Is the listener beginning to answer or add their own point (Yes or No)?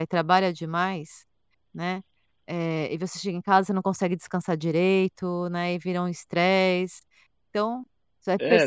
Yes